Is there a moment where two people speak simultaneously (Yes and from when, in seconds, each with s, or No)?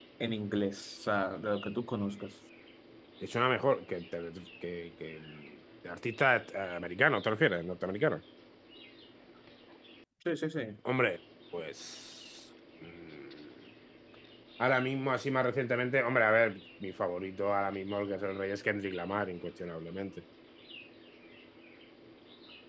No